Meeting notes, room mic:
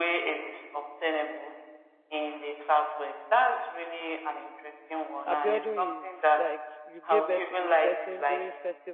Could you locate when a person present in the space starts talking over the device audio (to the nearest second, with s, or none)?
5 s